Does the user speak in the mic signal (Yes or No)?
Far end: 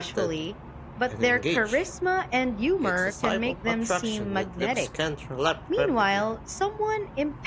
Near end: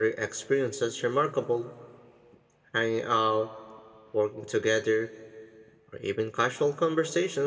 Yes